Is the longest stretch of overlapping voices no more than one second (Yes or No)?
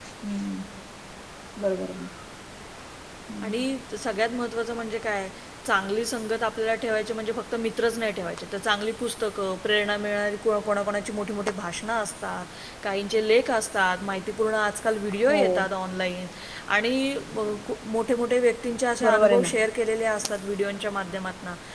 Yes